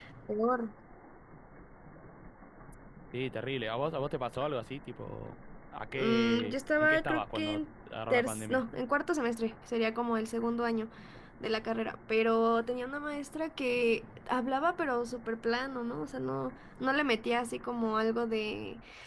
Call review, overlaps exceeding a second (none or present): present